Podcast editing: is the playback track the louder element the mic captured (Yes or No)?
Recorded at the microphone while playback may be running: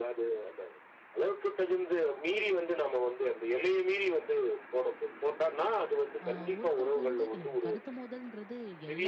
Yes